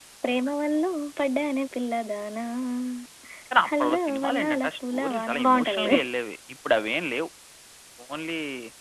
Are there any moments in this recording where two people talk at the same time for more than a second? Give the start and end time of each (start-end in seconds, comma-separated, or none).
3.7-6.0